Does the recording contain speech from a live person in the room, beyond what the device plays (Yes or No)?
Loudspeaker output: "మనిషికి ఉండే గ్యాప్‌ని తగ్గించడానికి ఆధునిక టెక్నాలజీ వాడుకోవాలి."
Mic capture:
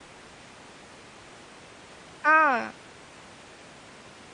Yes